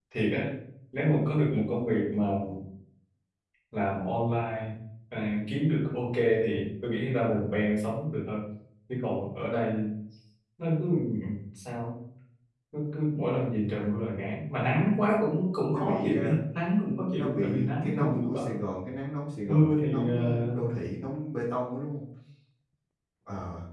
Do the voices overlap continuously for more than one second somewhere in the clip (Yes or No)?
Yes